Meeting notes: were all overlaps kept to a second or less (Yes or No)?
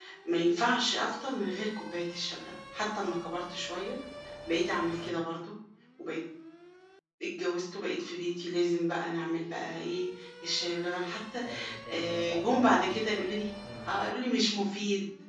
No